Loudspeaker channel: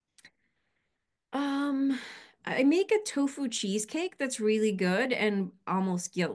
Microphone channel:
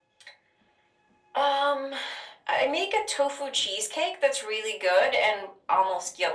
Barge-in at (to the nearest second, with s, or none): none